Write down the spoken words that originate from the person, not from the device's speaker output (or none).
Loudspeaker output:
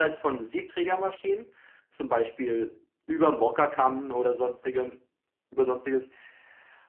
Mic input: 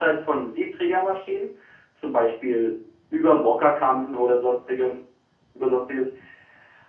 none